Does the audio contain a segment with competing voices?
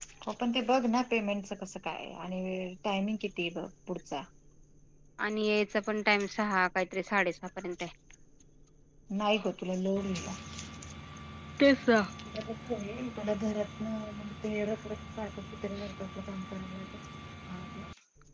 No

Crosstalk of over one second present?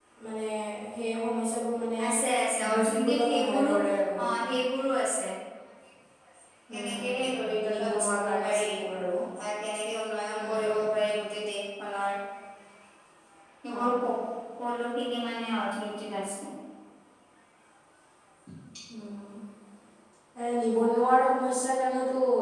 Yes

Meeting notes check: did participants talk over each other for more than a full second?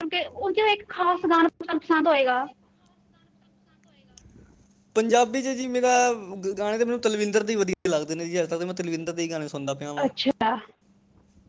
No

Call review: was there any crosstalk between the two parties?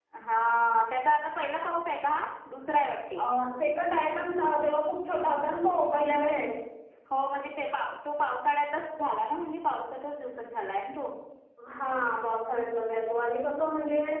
No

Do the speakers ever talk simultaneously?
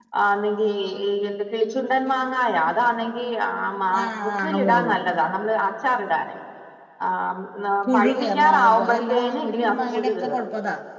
Yes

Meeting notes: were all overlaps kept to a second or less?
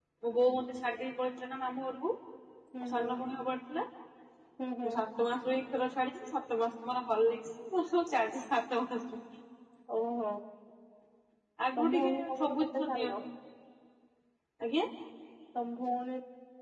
No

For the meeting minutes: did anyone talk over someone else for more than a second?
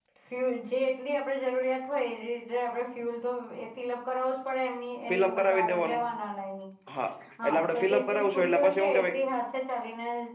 Yes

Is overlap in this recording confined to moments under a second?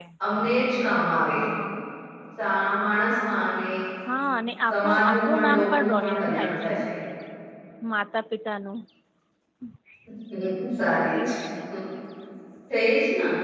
No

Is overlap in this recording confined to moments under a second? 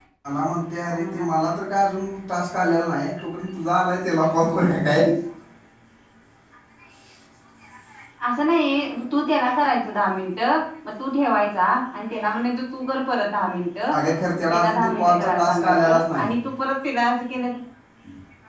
No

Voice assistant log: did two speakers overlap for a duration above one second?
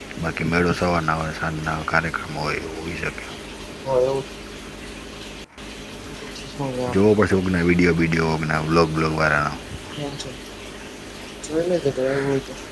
No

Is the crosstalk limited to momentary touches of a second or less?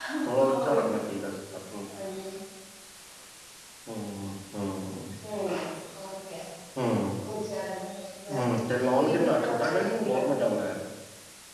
No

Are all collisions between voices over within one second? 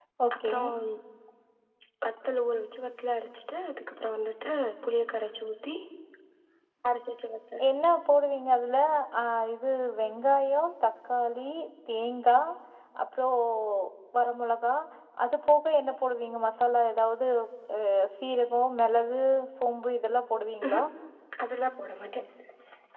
Yes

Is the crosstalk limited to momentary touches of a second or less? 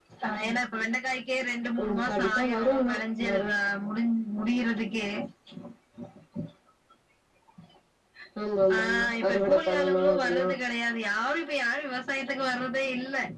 No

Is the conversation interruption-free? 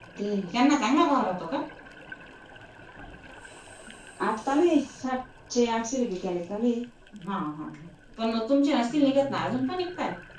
Yes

